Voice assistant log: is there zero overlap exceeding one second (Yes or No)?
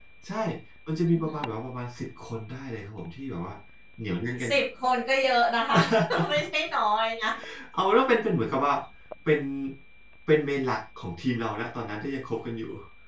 Yes